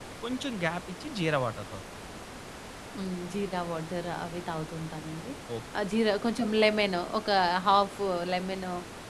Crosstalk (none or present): none